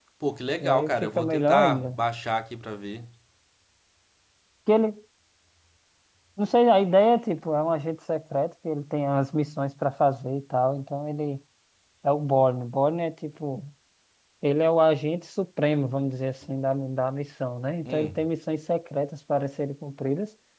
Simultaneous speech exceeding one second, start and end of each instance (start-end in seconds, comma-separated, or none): 0.6-2.0